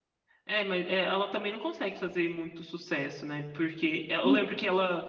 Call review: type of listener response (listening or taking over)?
listening